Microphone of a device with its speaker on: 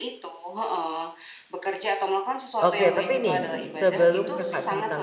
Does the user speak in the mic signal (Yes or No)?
Yes